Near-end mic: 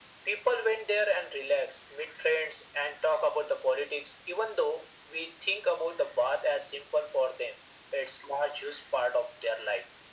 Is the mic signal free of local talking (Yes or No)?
Yes